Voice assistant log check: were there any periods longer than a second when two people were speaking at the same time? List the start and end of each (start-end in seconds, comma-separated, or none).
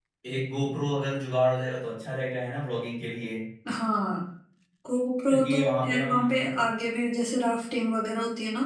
5.3-6.7